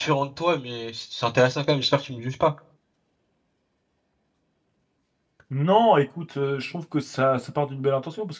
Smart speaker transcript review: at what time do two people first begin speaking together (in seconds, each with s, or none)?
none